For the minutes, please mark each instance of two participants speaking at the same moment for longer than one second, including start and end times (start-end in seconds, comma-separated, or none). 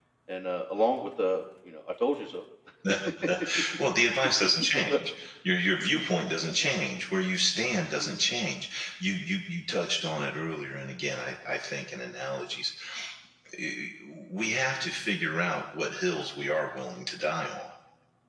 none